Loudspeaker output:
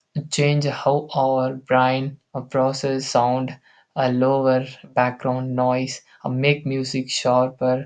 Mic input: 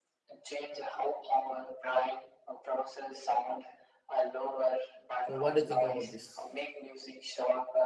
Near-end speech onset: 5 s

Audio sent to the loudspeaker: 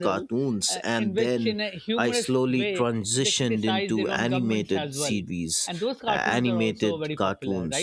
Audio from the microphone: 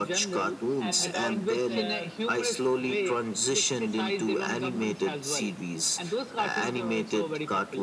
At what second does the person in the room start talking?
1 s

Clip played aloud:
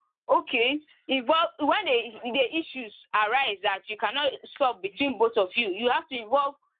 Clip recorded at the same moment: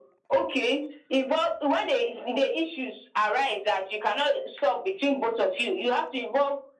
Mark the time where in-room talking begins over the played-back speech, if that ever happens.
none

